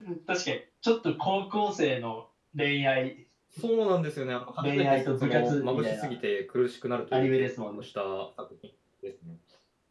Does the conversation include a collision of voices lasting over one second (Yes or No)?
Yes